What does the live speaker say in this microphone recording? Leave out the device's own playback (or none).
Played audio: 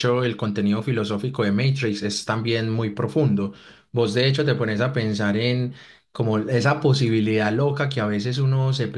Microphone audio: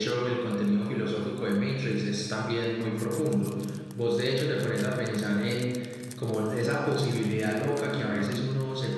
Ujú,